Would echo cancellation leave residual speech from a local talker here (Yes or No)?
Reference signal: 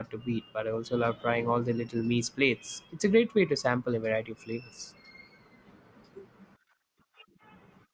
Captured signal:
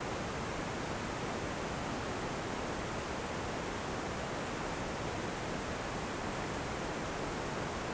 No